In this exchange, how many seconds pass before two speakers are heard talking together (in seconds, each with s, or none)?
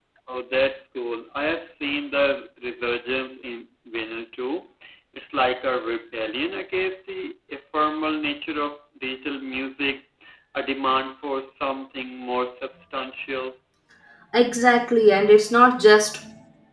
none